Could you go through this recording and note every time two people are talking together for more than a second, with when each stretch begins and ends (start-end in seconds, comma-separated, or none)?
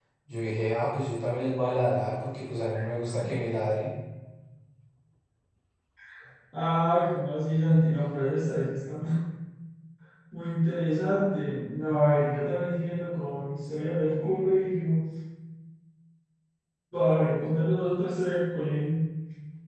none